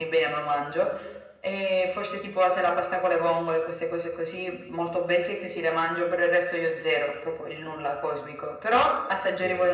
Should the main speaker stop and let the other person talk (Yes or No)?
No